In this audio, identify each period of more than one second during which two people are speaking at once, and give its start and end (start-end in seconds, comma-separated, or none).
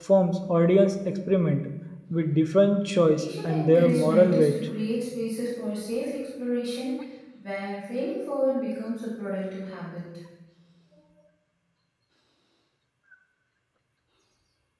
3.1-4.6